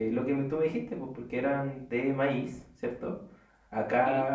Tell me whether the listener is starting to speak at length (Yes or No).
No